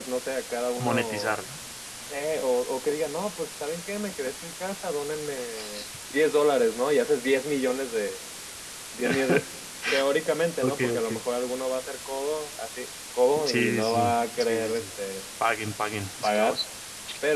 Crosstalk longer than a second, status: present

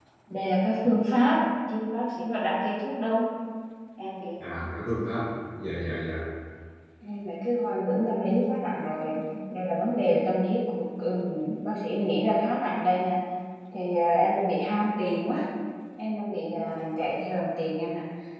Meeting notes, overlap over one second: none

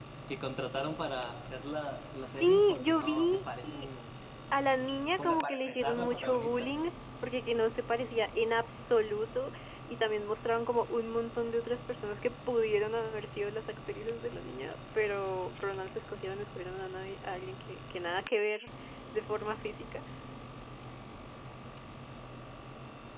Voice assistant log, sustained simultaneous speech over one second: present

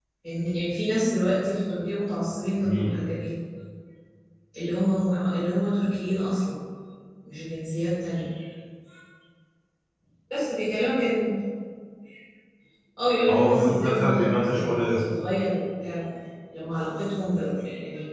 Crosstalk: present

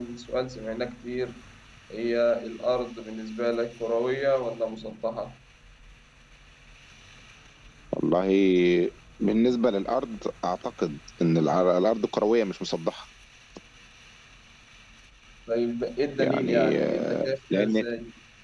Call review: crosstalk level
present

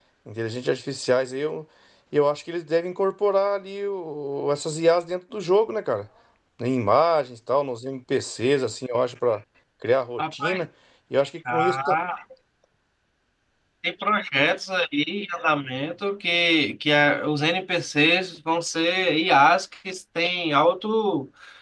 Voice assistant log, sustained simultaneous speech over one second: none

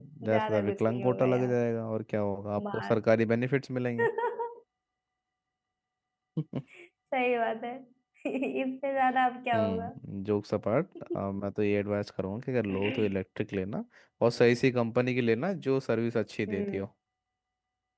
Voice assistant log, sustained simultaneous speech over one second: present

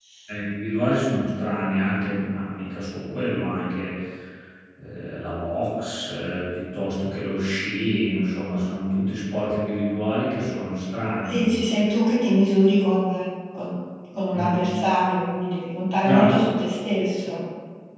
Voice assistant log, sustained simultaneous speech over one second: none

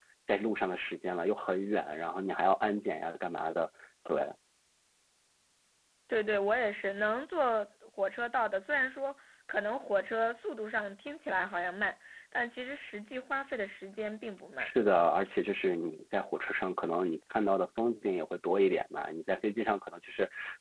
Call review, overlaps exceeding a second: none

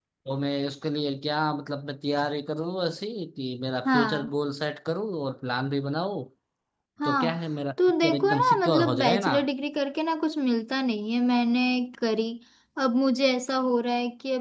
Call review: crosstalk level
present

